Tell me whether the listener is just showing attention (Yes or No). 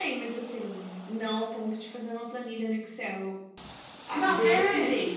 Yes